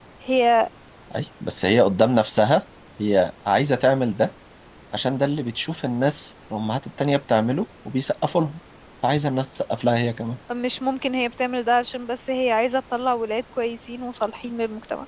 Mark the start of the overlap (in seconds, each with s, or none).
none